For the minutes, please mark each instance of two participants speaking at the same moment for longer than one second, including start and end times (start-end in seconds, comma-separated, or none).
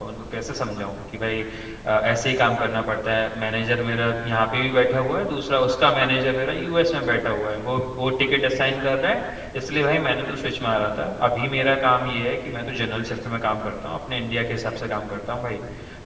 none